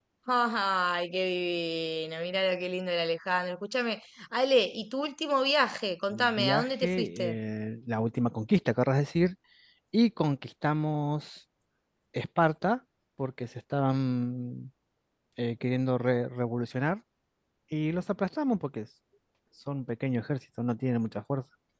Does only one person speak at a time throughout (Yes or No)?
No